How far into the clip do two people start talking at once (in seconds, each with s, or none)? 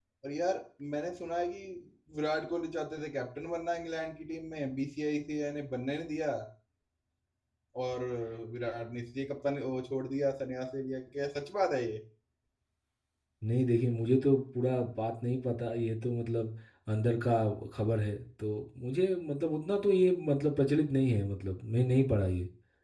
none